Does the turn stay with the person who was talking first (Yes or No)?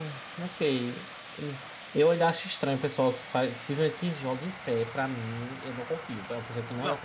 No